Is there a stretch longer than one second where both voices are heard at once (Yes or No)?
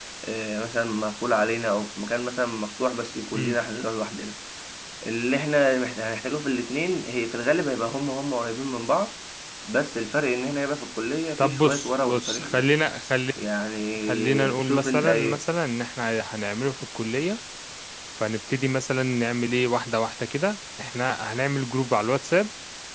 Yes